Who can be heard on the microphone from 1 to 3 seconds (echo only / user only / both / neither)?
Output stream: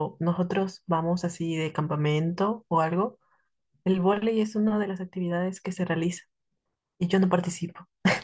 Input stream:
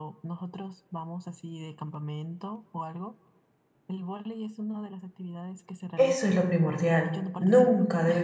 echo only